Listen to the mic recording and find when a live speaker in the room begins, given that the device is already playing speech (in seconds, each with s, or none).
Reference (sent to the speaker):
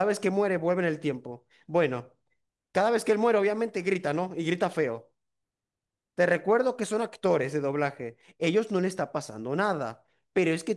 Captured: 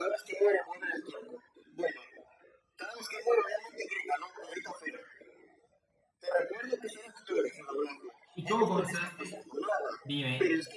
8.3 s